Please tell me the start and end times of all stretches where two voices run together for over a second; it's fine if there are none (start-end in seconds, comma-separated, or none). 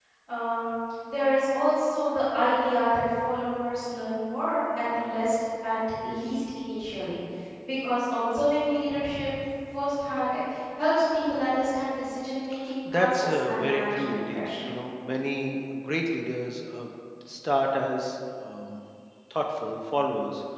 12.9-14.6